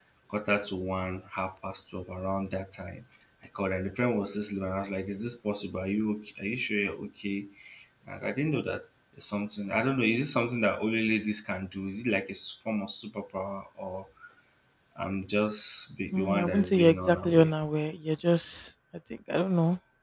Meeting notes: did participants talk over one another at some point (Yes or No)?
Yes